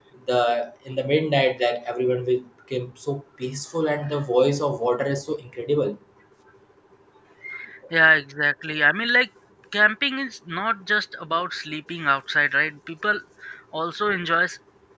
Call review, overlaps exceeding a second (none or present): none